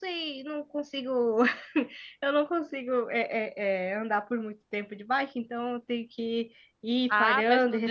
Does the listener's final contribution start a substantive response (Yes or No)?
Yes